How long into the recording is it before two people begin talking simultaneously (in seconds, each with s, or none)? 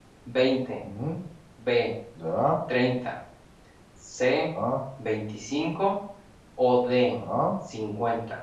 none